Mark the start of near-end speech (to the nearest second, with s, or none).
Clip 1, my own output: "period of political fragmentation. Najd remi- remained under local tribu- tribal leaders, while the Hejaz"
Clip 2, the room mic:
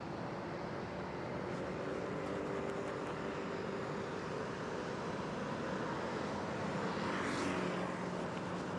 none